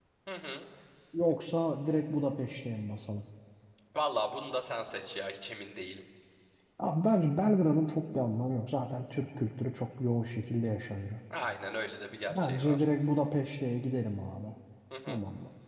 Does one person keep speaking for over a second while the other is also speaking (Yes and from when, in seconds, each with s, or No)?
No